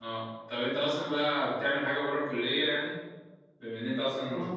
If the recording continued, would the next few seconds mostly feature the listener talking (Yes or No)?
Yes